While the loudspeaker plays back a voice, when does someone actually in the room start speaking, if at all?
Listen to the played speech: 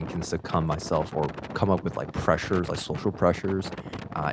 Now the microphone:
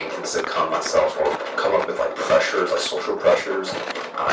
none

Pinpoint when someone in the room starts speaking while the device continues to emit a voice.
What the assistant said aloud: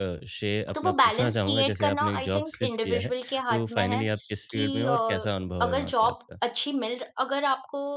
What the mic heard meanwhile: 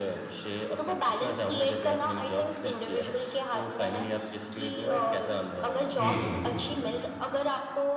6.0 s

